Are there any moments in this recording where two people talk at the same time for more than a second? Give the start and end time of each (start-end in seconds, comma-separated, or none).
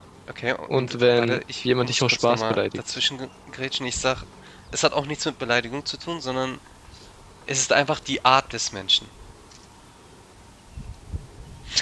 0.8-3.0